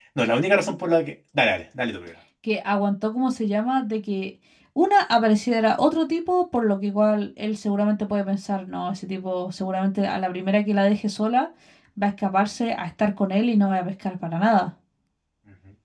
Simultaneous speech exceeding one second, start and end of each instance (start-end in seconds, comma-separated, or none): none